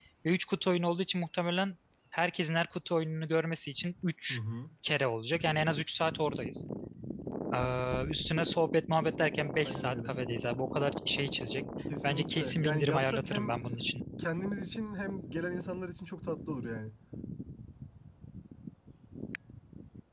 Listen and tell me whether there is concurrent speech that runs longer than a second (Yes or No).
Yes